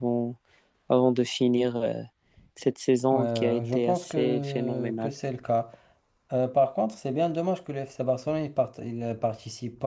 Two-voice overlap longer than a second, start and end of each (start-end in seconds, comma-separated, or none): 3.1-5.1